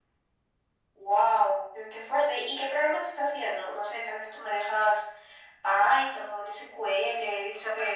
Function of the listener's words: taking over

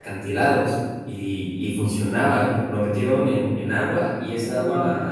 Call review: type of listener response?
listening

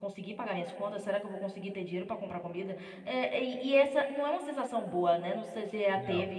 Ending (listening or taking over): listening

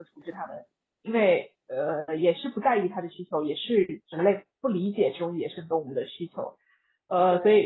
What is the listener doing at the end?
listening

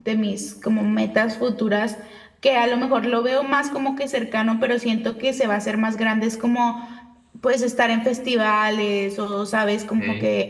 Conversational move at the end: listening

